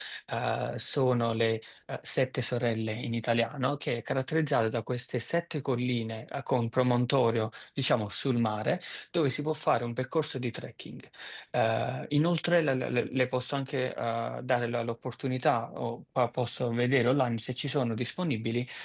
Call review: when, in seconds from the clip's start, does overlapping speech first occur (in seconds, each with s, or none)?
none